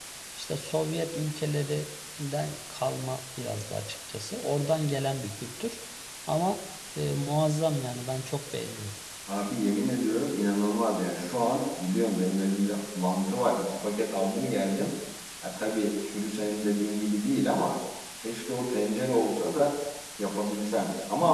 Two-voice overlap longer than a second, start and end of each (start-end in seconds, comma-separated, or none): none